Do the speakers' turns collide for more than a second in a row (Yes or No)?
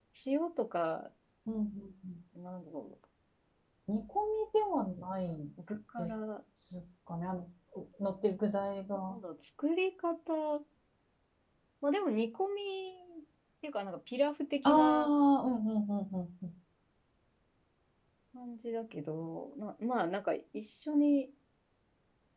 No